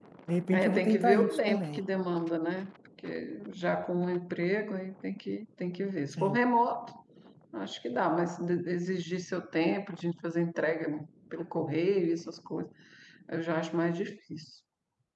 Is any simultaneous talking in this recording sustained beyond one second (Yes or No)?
Yes